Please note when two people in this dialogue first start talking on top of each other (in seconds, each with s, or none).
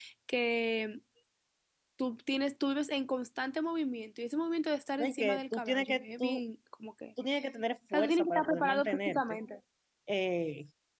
5.0 s